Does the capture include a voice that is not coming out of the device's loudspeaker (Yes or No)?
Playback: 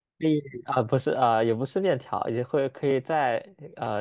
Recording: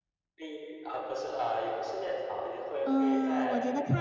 Yes